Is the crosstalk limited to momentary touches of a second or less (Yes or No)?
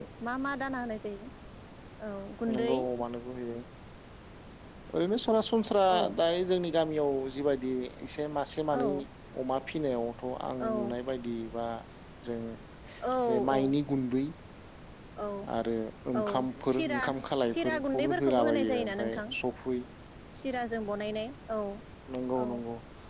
No